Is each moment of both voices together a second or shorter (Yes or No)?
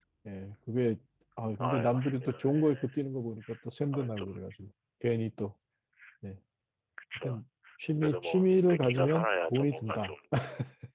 No